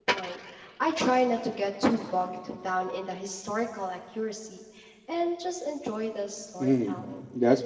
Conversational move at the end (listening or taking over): taking over